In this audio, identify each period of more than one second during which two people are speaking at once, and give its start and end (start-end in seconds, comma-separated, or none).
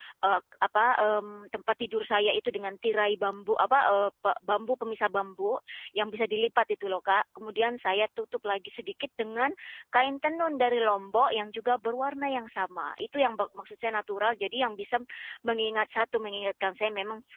none